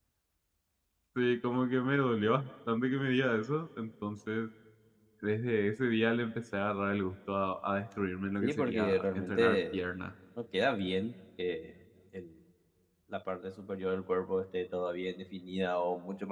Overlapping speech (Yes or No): Yes